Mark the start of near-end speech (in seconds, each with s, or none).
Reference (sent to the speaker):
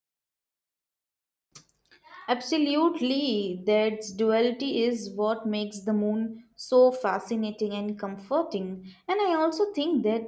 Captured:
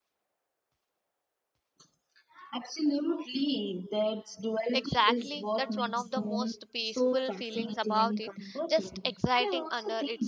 4.7 s